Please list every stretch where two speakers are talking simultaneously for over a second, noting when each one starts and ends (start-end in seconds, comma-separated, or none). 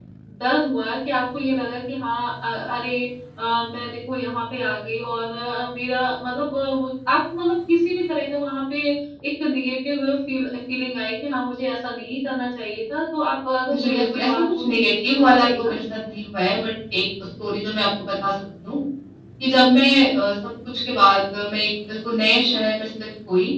13.8-15.7